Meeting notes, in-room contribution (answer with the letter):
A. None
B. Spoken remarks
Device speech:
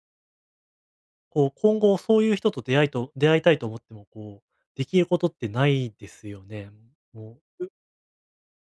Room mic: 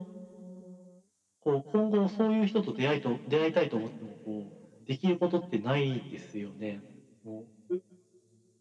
A